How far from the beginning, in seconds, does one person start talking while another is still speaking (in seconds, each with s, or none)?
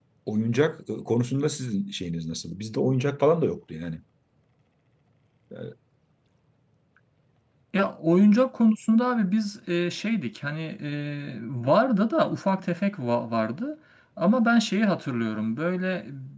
none